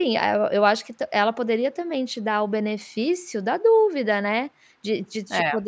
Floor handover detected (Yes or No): No